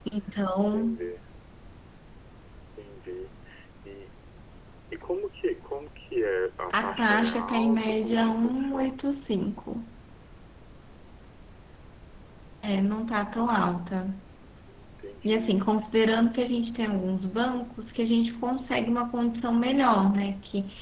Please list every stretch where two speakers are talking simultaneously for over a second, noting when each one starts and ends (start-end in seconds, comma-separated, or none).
6.7-9.1